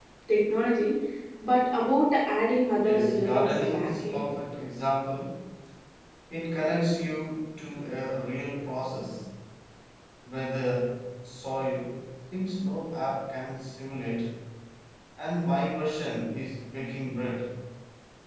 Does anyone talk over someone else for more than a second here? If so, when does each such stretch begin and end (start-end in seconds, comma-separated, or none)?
2.8-4.2